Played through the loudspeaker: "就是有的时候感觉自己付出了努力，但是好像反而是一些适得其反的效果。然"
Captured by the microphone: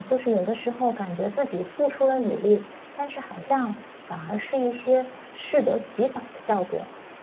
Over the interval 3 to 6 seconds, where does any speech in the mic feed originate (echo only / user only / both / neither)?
echo only